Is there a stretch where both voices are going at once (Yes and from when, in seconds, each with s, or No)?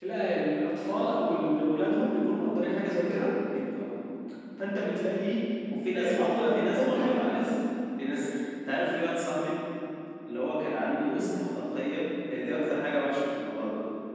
Yes, from 5.9 s